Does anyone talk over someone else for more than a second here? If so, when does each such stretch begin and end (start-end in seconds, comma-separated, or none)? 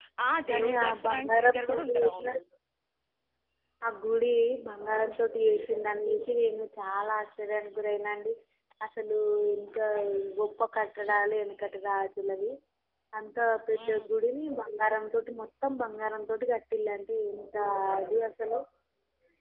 0.5-2.3